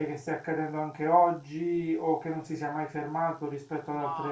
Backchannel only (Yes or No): No